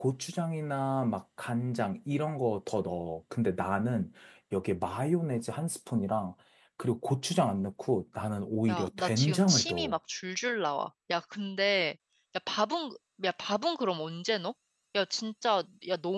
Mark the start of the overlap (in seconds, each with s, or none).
8.7 s